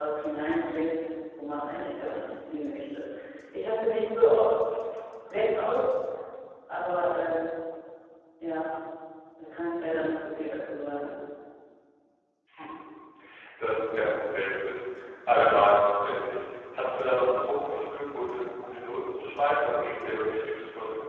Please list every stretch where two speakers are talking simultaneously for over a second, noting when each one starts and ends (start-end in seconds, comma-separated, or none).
none